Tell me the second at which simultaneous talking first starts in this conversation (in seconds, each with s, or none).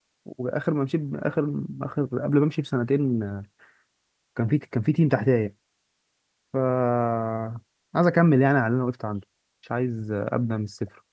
none